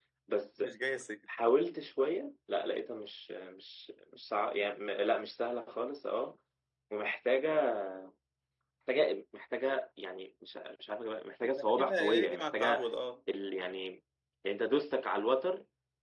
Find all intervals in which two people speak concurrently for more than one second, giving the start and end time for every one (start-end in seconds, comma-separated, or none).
11.6-12.8